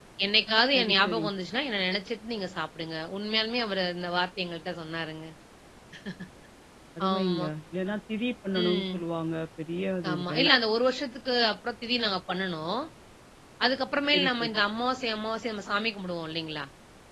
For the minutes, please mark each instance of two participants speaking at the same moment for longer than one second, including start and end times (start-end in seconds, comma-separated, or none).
none